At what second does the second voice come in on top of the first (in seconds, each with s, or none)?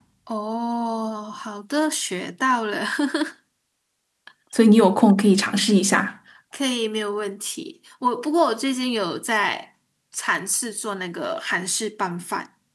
none